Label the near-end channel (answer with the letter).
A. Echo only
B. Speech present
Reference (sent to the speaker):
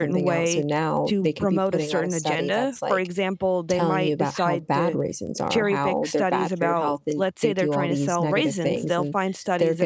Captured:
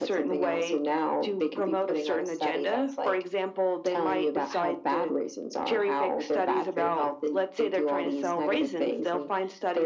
A